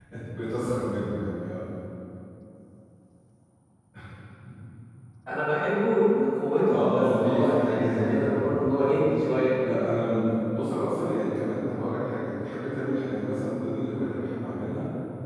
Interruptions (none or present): present